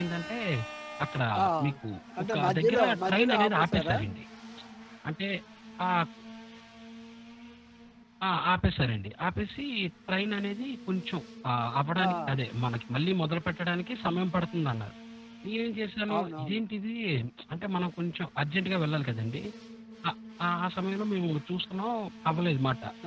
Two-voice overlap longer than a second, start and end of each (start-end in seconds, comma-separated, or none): 2.3-4.0